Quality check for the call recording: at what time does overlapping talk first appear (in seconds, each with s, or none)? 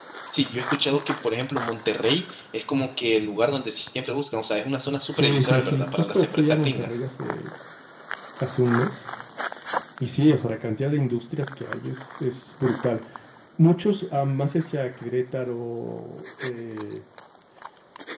5.1 s